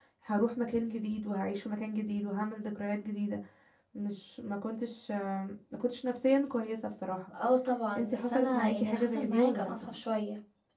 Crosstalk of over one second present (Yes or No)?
Yes